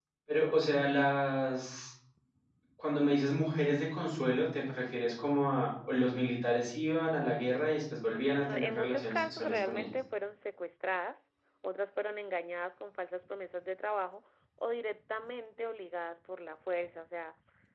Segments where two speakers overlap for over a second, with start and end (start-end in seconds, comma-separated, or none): 8.1-9.8